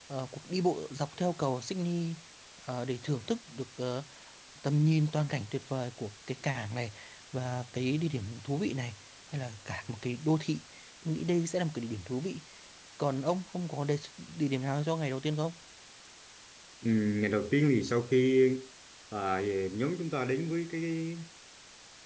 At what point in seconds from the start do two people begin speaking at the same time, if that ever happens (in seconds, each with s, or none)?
none